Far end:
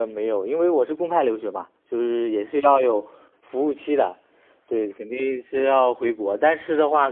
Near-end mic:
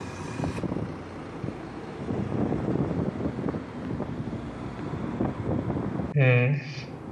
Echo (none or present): none